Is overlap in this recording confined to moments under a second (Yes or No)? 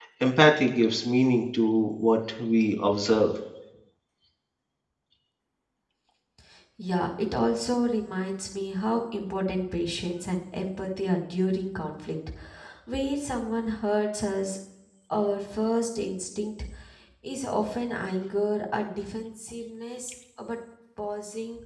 Yes